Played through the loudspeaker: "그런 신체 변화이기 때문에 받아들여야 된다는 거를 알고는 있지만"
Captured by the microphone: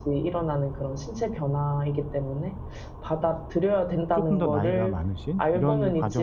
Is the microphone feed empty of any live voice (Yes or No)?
No